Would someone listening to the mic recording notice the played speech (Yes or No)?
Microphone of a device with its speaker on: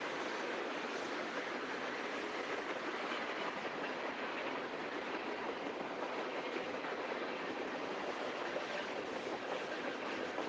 No